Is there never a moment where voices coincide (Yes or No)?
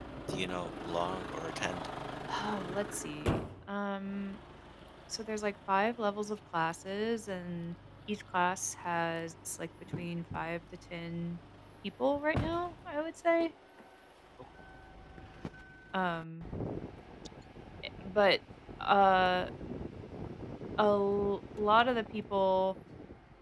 Yes